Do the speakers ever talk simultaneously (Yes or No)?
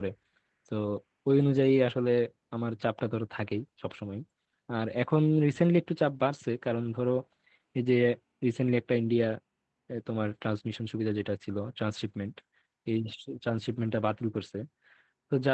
No